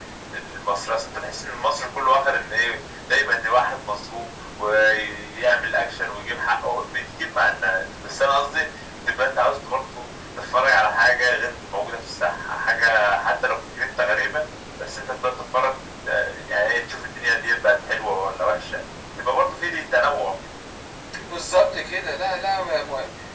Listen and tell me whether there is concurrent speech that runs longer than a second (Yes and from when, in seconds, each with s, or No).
No